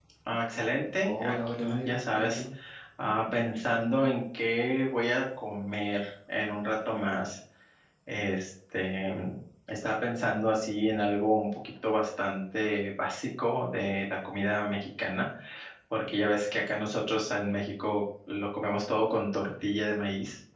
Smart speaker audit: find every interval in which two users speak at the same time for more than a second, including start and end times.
1.0-2.4

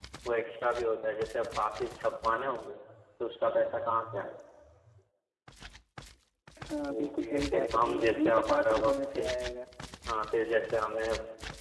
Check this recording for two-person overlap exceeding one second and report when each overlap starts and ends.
6.9-9.2

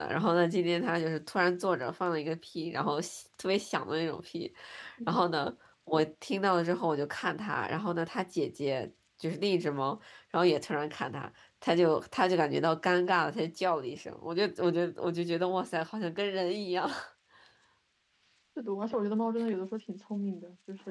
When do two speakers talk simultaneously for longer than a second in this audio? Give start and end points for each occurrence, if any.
none

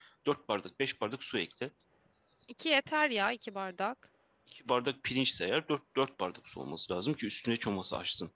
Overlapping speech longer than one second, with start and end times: none

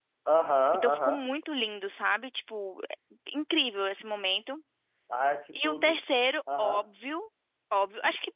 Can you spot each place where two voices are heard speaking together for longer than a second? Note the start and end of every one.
none

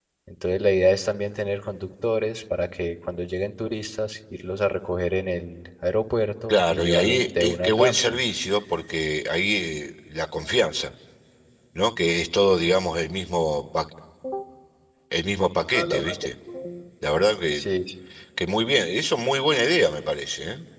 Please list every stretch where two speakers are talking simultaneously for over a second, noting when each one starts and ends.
6.5-8.2

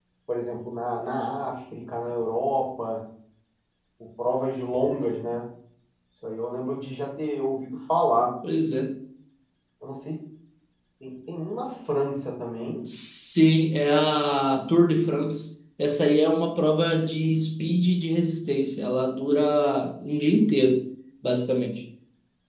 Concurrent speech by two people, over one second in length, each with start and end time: none

